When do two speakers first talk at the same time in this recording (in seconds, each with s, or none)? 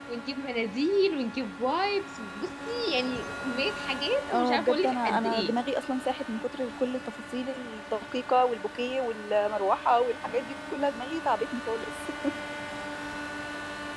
4.3 s